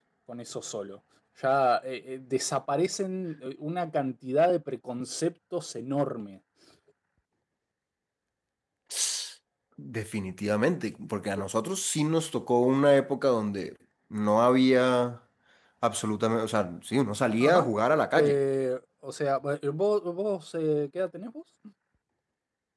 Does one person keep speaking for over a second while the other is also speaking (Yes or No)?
No